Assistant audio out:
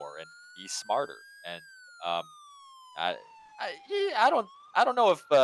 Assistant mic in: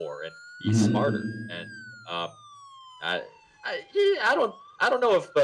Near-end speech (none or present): present